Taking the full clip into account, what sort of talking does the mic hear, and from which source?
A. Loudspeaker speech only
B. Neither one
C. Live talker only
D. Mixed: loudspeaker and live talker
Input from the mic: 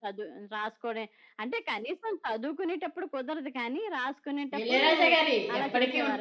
D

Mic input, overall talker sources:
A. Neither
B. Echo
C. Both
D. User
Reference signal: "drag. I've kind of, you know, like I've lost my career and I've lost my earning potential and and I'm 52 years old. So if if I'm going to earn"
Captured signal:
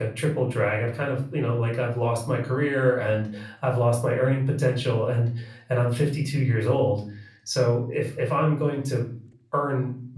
B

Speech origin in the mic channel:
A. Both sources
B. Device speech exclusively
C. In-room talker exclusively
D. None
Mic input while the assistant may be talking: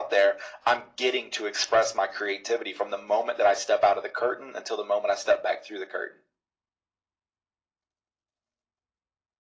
B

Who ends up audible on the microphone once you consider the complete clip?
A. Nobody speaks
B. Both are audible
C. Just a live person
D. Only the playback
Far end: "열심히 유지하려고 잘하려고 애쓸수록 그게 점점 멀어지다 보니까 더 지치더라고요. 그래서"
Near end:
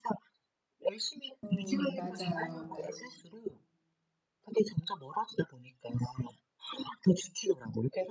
B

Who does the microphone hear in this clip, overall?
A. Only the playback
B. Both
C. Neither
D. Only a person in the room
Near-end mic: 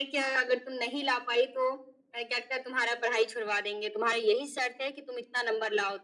A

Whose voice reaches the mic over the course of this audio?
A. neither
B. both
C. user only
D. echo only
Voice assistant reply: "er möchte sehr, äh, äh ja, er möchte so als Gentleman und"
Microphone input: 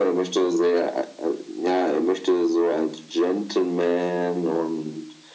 D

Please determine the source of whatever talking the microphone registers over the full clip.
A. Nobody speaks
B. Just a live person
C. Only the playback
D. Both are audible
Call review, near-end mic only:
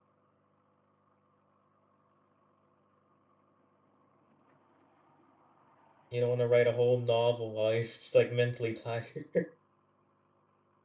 B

